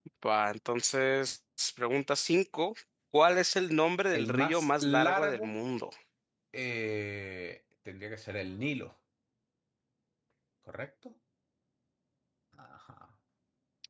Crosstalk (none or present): present